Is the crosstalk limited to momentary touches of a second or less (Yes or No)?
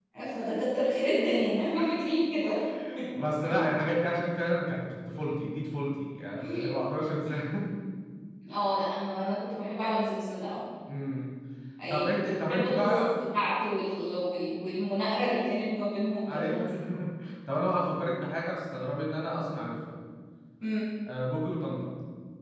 No